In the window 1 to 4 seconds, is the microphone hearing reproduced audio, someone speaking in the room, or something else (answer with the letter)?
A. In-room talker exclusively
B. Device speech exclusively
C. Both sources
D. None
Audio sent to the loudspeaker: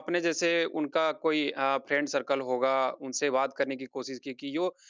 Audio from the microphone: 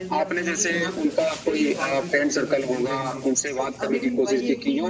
C